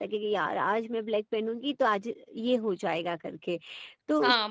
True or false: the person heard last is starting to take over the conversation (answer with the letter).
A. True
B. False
A